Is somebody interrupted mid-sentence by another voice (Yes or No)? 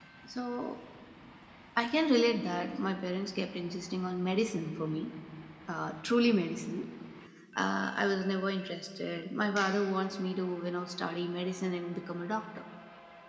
No